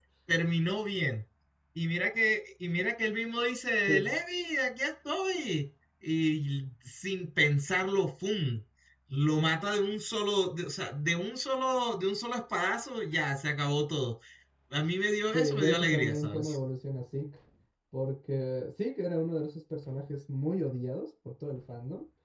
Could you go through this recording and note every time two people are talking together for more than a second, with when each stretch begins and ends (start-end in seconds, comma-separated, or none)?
15.3-16.6